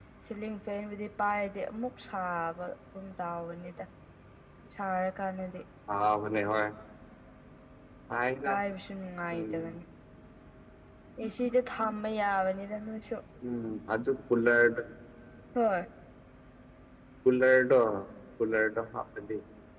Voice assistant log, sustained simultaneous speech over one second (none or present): none